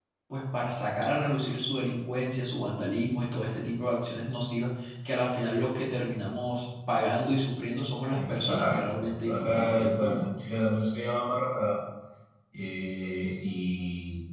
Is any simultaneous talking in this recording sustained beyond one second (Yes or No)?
Yes